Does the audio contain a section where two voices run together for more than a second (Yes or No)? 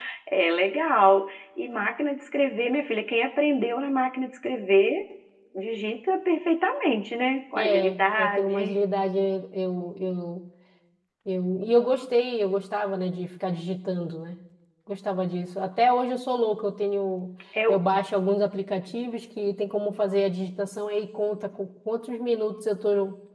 Yes